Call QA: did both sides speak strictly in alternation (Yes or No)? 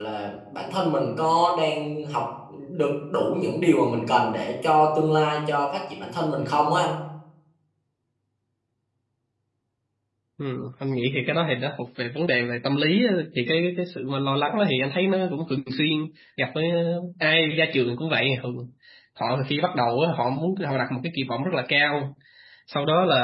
Yes